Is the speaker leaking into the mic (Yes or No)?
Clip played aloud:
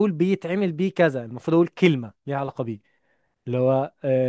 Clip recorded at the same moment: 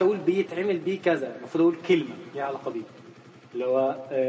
Yes